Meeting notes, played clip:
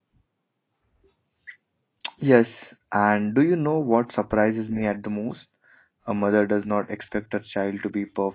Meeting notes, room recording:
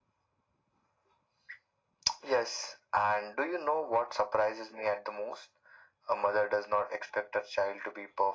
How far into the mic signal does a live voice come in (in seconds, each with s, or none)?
none